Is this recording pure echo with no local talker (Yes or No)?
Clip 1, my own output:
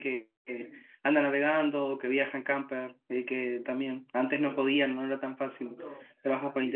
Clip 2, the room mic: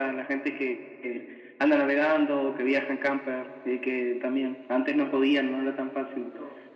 Yes